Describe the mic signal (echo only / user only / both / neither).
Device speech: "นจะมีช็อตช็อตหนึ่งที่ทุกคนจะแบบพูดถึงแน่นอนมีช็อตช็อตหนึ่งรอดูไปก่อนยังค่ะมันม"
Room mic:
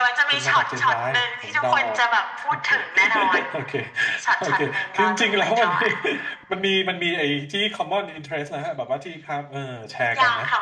both